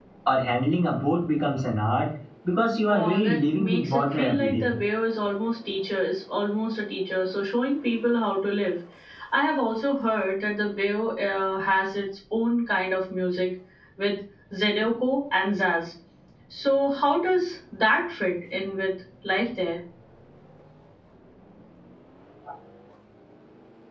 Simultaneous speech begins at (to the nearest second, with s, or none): 3 s